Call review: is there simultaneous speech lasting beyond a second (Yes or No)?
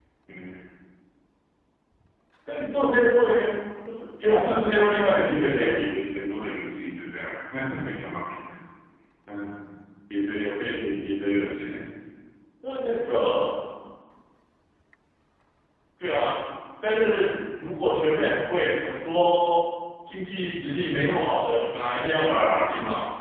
Yes